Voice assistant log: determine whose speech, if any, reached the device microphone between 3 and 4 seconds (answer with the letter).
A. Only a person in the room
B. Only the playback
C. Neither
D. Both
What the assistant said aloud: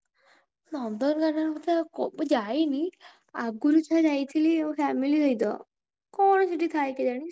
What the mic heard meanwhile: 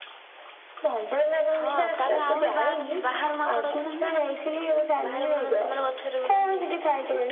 D